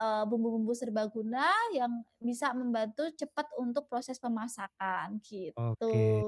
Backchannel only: No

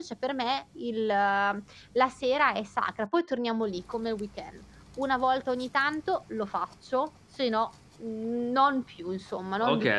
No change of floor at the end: No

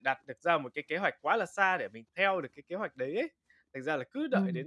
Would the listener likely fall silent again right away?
Yes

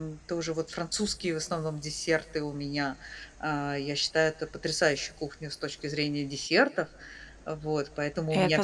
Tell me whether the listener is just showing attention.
Yes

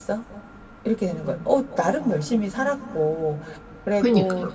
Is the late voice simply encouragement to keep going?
Yes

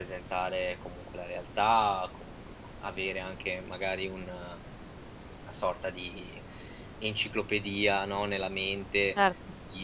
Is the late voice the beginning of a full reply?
No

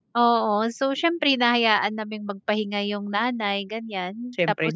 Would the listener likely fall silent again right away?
Yes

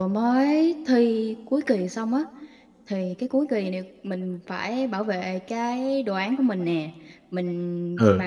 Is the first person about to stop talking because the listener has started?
No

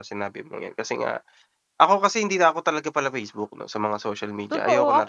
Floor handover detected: Yes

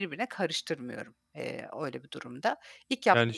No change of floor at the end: No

